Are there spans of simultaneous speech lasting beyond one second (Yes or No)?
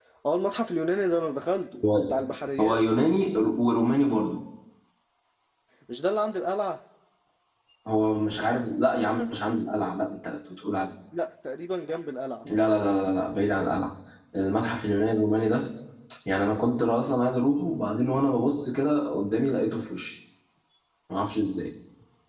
No